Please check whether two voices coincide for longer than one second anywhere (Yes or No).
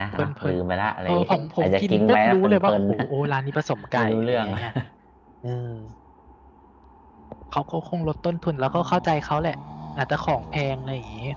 Yes